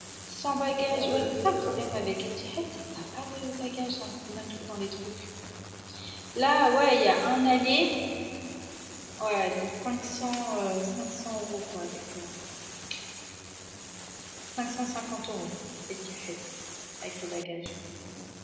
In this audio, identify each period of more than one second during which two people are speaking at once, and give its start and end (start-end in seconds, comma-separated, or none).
0.8-2.0